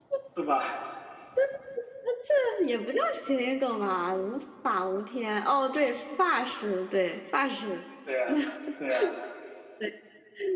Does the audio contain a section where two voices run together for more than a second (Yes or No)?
No